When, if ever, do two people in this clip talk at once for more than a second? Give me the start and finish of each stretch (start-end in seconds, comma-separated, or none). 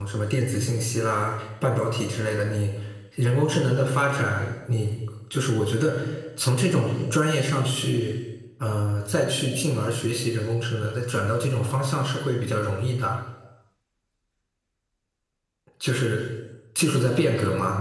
none